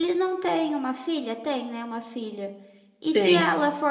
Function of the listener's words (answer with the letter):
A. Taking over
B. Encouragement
B